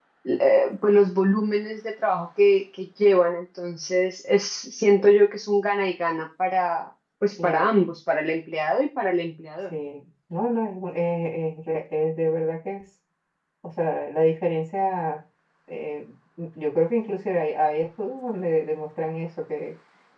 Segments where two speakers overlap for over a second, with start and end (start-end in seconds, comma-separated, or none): none